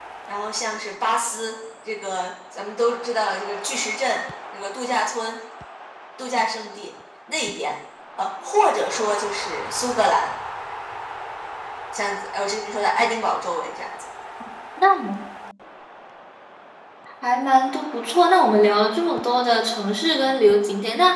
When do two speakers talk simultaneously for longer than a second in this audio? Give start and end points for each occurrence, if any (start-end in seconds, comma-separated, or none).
none